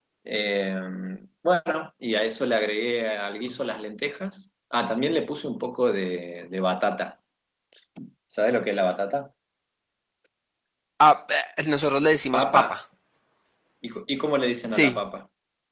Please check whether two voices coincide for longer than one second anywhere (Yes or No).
No